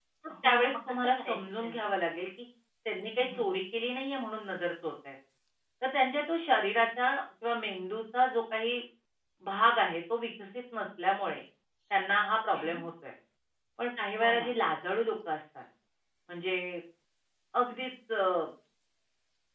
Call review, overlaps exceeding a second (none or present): present